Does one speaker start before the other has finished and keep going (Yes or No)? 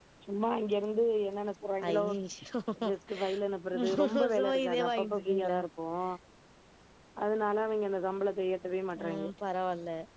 Yes